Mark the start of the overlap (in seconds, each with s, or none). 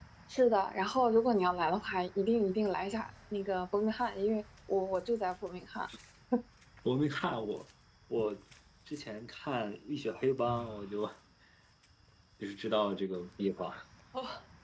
none